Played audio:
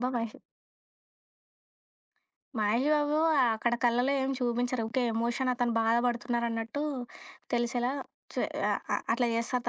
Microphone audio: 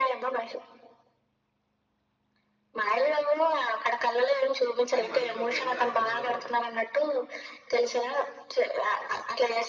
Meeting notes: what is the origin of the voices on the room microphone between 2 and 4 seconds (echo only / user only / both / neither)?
echo only